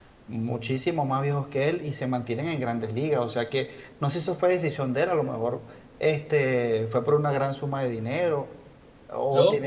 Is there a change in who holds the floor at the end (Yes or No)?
Yes